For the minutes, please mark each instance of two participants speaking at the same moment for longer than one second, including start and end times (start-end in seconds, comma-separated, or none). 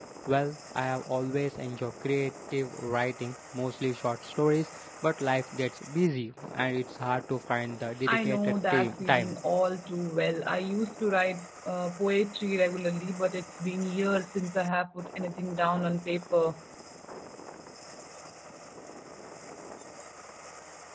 8.1-9.4